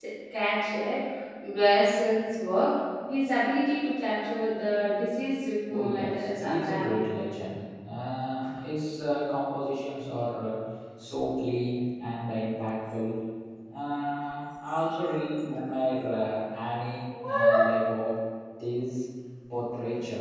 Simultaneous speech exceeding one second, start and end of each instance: 5.7-7.0

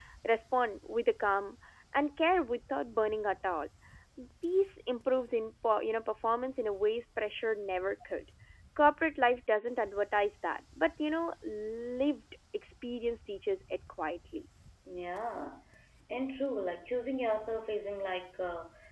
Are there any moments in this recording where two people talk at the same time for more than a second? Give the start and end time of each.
none

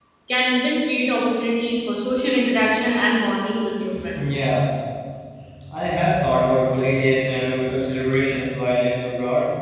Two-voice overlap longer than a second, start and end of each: none

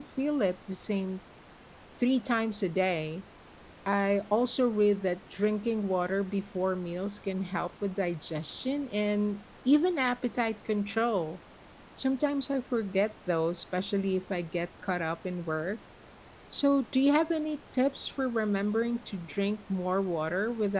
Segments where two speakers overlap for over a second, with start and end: none

